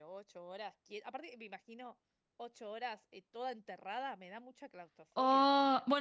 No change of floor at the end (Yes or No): No